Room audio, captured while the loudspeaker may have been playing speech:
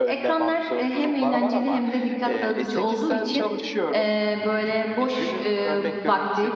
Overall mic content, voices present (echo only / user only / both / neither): both